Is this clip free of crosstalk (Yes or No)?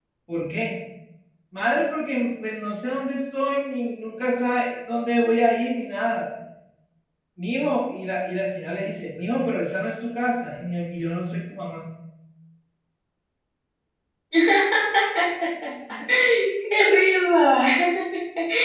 Yes